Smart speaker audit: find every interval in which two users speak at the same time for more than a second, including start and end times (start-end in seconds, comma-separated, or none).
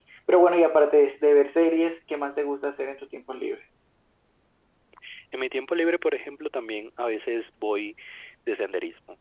none